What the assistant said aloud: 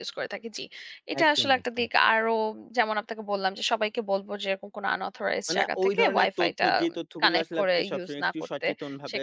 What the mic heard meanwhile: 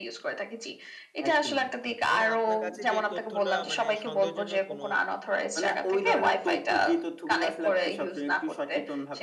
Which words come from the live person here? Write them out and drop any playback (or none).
মানে আপনার কাছে যে তথ্যটা মানে সন্দেহজনক কোনো